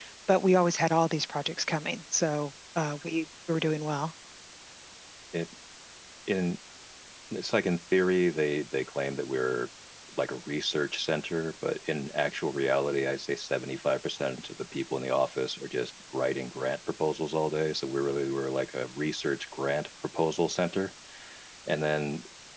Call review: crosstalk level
none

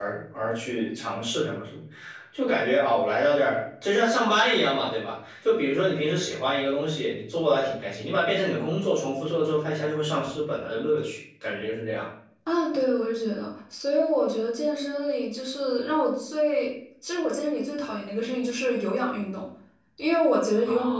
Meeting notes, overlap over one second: none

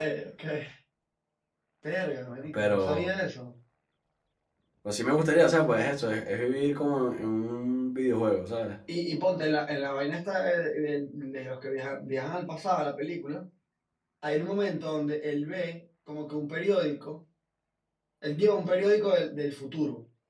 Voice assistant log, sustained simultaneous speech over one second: none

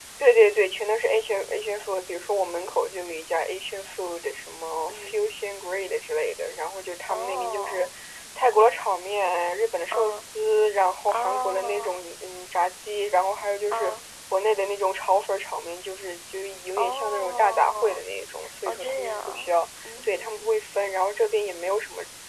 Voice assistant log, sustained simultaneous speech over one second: present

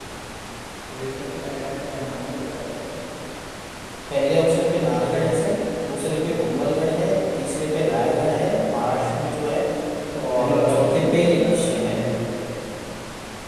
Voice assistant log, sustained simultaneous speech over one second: present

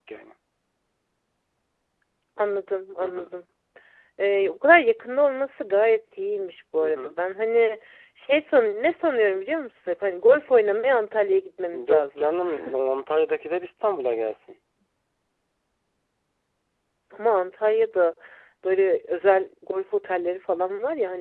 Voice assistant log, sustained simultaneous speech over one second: none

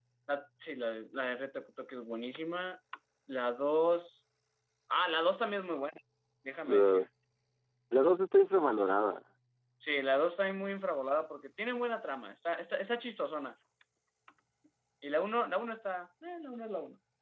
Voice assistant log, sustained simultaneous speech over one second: none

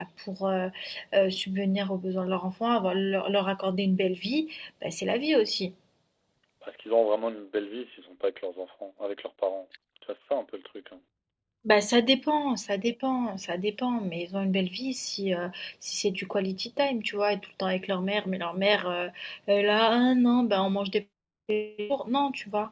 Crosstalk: none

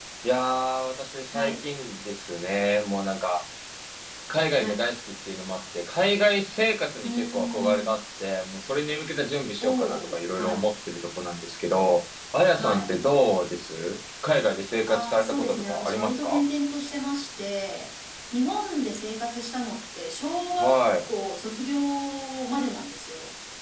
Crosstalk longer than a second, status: present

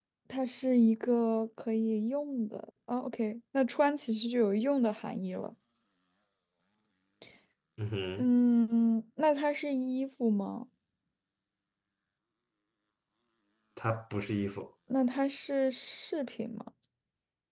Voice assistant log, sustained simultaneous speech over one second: none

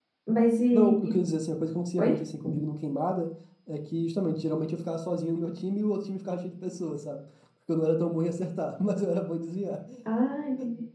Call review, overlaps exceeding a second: none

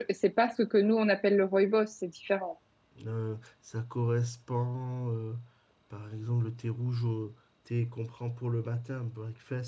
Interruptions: none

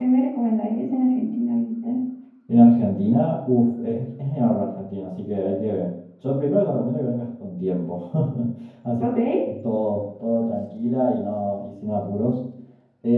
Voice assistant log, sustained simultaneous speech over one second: none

